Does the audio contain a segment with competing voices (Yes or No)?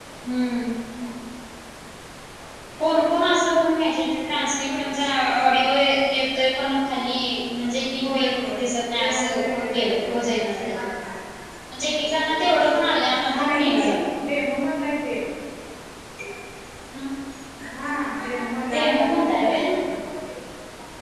Yes